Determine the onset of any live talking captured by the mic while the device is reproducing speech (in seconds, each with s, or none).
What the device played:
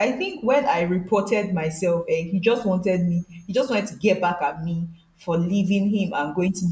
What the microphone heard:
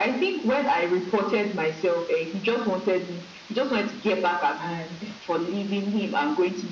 4.6 s